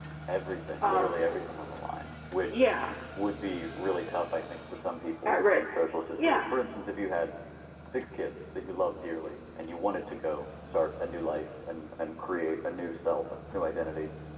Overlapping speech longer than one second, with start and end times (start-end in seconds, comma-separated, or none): none